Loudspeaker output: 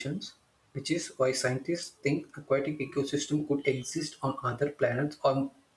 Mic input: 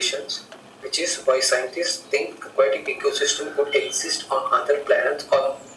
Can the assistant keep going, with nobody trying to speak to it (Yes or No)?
Yes